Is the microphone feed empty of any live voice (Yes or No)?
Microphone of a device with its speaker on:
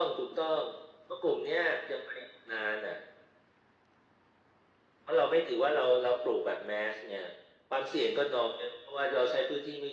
Yes